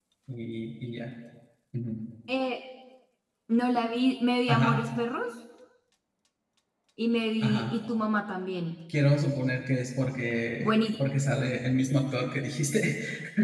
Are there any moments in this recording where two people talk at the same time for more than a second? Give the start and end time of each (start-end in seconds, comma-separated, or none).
none